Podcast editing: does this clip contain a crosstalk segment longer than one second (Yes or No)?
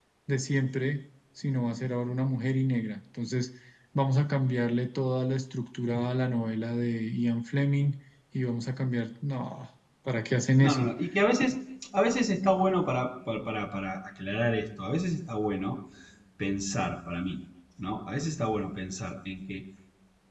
No